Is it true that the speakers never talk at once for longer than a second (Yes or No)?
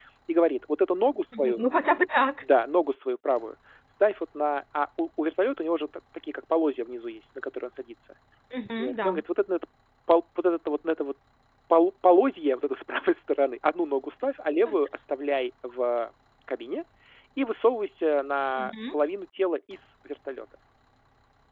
Yes